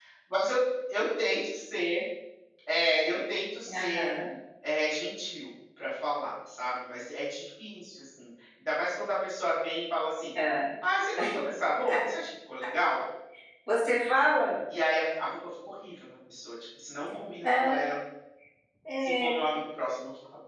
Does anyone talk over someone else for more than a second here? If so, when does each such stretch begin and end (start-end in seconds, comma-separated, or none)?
none